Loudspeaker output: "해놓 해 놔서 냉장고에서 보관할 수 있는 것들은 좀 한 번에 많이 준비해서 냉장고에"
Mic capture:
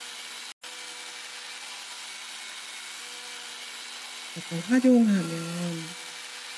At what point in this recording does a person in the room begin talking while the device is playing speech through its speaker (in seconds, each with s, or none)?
4.3 s